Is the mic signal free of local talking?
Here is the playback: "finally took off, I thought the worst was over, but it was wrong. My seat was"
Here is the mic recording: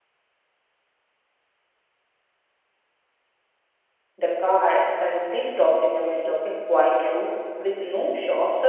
No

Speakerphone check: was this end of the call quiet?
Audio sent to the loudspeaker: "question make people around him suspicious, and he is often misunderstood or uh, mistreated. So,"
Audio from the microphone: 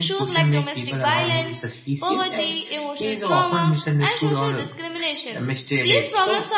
No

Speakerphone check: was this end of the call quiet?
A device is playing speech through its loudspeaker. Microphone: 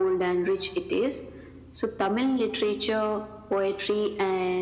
Yes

